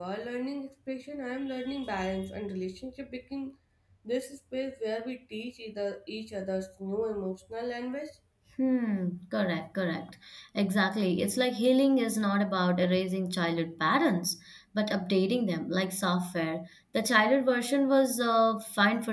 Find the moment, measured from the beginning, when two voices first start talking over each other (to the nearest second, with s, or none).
none